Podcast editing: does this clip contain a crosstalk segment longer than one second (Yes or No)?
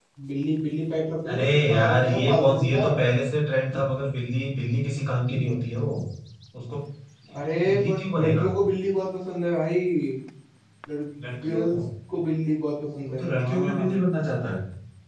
Yes